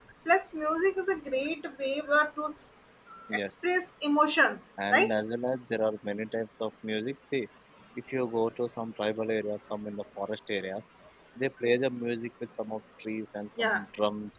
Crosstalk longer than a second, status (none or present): none